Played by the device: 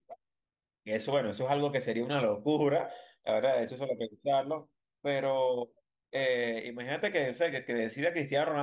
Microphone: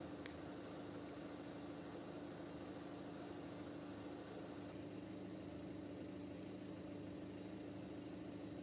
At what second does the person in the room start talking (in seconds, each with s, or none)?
none